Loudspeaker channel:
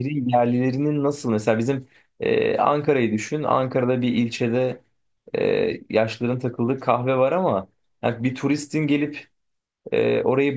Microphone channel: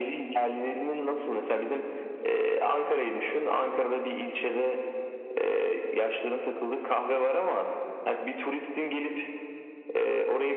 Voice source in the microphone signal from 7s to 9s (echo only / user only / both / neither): echo only